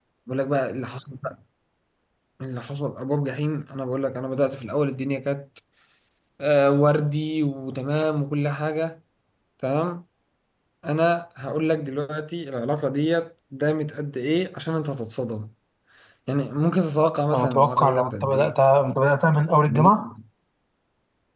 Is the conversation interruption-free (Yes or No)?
No